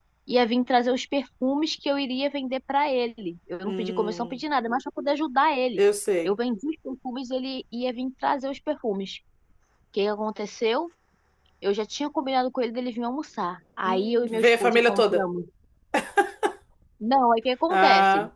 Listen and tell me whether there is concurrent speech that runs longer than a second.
Yes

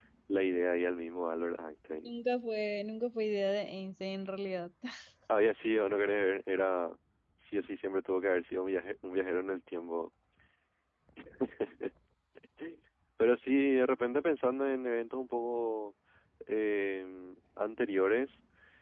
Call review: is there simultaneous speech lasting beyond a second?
No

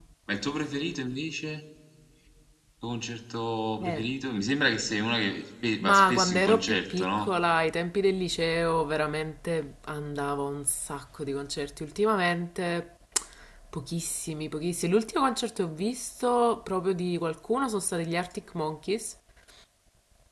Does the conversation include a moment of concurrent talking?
Yes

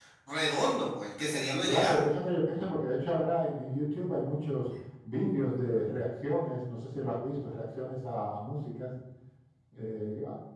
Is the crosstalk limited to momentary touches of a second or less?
Yes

